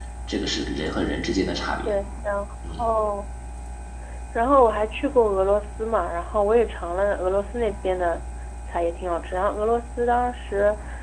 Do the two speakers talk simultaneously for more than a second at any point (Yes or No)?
No